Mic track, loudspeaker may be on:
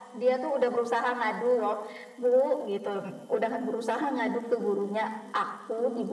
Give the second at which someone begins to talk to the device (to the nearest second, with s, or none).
none